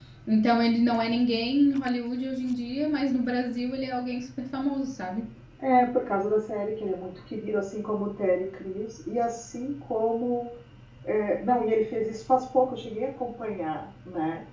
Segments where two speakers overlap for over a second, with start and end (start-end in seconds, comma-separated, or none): none